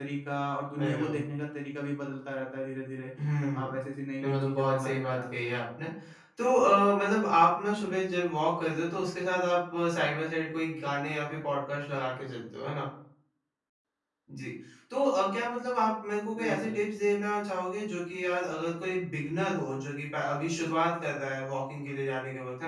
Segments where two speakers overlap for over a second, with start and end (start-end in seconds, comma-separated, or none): 4.2-5.5